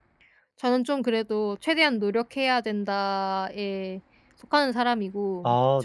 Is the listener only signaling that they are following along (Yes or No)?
Yes